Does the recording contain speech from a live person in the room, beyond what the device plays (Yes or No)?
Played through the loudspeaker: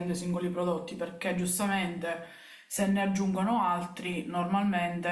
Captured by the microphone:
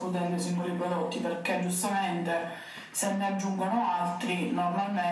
No